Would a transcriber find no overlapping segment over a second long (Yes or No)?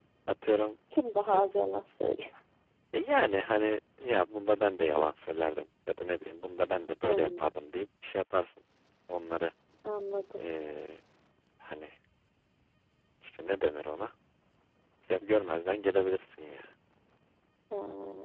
Yes